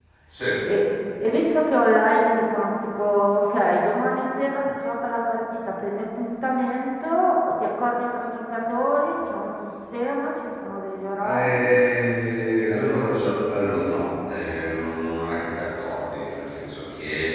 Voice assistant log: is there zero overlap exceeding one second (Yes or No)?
Yes